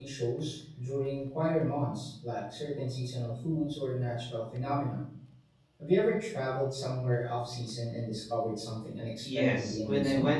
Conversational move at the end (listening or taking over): taking over